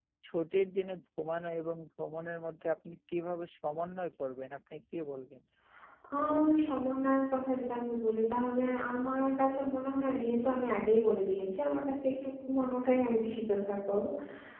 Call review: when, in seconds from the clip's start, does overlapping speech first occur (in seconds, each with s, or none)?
none